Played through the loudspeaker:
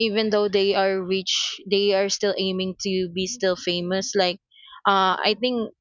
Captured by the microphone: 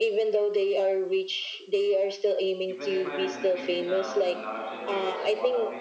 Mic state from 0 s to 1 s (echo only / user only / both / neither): echo only